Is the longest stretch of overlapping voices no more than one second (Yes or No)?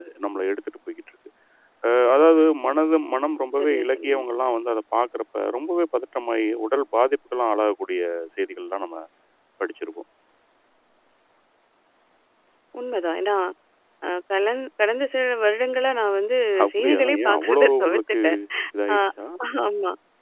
No